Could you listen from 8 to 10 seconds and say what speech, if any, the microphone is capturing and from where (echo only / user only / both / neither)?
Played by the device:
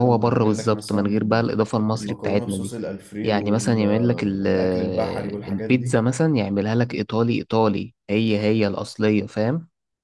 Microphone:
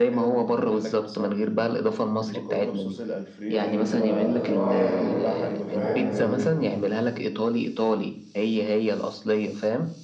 echo only